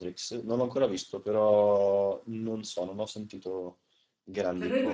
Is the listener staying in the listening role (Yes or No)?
No